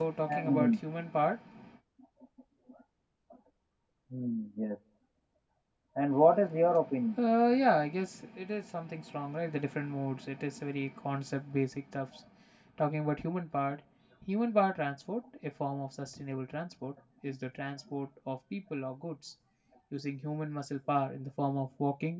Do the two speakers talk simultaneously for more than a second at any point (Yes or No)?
No